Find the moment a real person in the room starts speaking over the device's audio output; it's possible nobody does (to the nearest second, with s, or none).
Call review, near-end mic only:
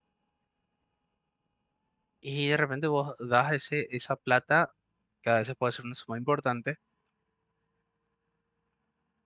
2 s